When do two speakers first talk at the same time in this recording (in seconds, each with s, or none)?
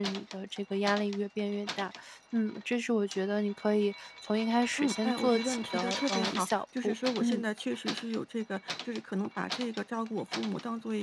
4.8 s